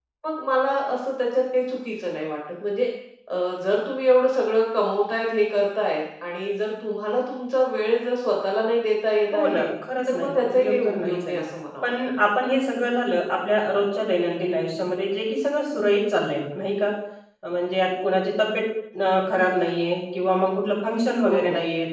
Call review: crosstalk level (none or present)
present